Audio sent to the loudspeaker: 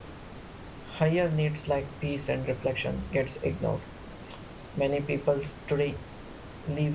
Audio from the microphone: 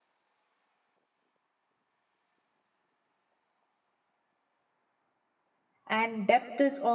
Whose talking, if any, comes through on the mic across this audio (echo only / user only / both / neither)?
user only